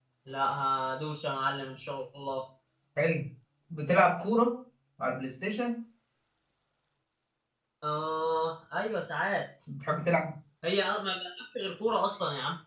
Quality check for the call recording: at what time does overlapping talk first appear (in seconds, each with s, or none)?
none